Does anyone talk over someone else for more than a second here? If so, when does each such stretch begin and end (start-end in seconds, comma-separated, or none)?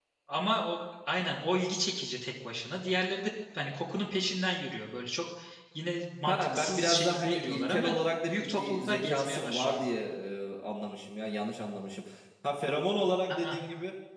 6.3-7.9, 8.3-9.9